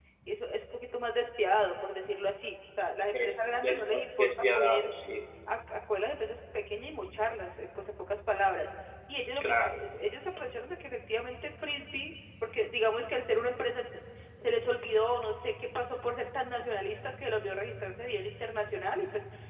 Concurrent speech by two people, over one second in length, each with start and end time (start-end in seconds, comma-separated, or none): 3.1-4.9